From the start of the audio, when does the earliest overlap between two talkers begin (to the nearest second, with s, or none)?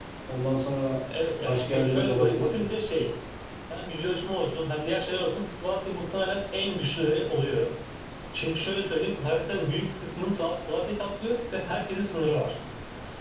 1 s